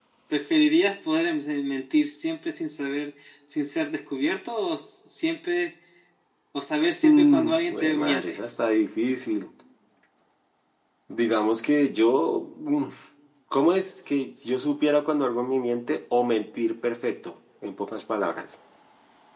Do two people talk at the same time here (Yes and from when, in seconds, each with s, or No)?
Yes, from 7.0 s